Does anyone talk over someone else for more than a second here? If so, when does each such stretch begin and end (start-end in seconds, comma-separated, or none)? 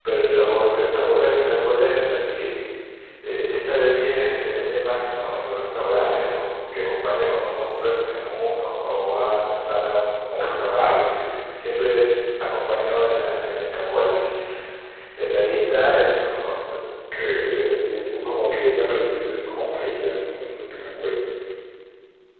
none